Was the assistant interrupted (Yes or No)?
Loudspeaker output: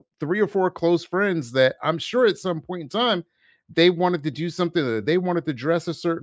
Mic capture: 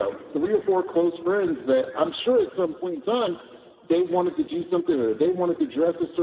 No